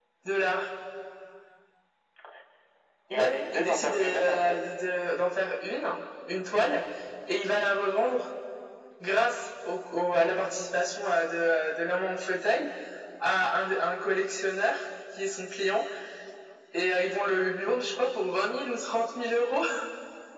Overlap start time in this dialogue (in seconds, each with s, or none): 3.1 s